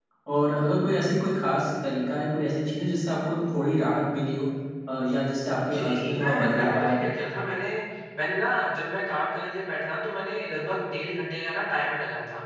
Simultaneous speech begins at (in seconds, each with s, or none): 5.7 s